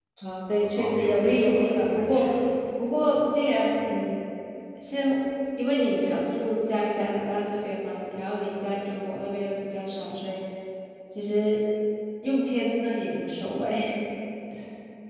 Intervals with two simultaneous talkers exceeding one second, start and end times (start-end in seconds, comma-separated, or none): 0.6-2.3